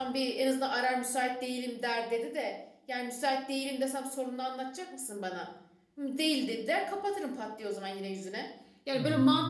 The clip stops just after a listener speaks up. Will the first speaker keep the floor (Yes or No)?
Yes